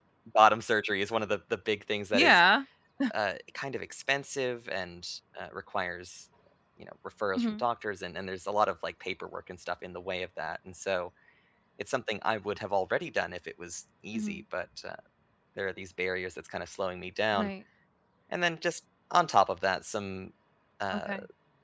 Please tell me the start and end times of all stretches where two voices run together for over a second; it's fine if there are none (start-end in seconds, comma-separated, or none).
none